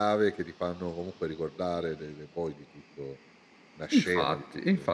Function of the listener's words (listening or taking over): taking over